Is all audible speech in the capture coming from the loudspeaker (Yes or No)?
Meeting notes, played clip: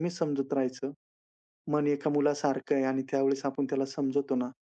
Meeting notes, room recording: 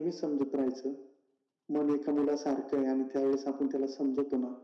Yes